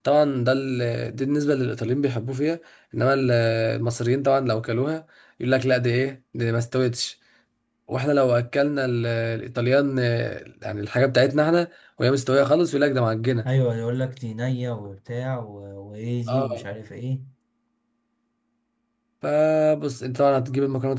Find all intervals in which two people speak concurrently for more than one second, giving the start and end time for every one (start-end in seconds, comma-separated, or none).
none